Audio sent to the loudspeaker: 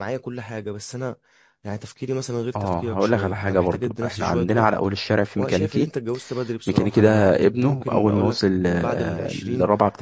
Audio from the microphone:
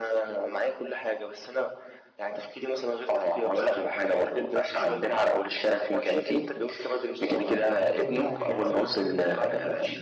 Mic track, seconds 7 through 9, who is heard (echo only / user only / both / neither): both